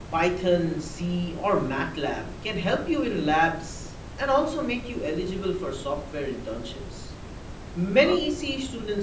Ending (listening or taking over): listening